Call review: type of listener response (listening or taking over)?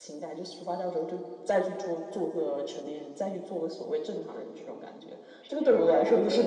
taking over